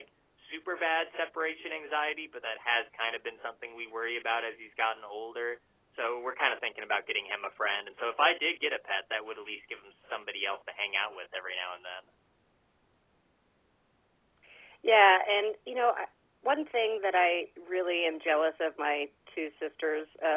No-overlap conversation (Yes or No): Yes